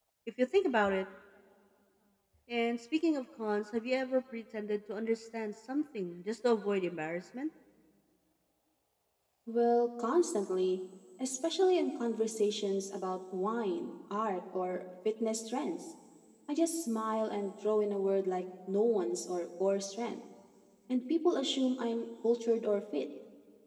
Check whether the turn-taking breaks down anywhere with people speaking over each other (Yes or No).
No